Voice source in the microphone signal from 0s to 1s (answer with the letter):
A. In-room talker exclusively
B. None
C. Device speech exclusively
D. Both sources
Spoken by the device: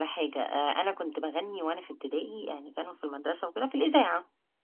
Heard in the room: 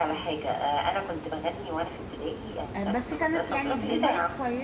C